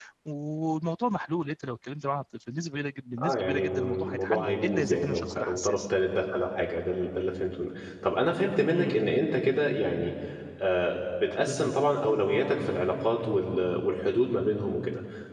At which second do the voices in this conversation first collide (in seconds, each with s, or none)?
3.2 s